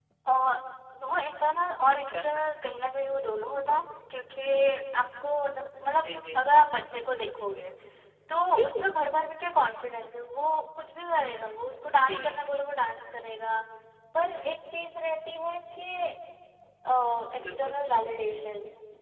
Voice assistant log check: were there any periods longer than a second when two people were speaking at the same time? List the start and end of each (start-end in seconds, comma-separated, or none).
none